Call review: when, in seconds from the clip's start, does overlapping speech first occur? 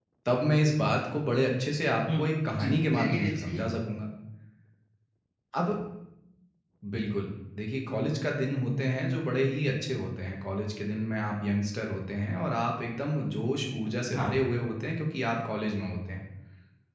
2.1 s

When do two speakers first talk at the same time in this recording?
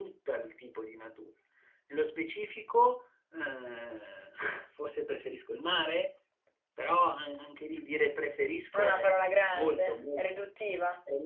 8.7 s

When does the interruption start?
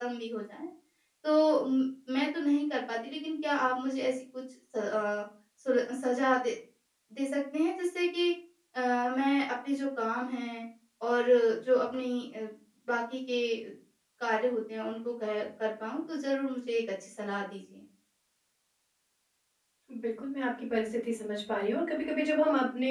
none

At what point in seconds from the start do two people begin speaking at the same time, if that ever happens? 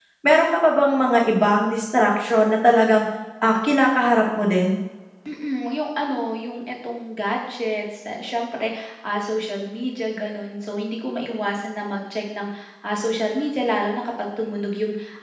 none

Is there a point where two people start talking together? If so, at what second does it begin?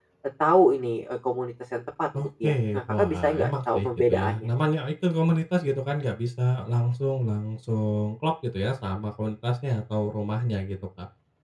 2.1 s

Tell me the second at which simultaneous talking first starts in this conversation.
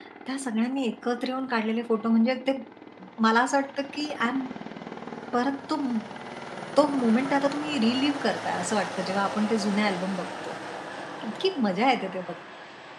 none

